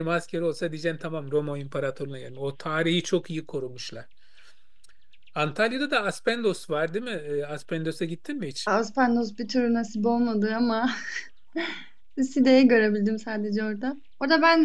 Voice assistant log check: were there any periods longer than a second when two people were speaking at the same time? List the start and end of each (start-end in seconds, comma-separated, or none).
none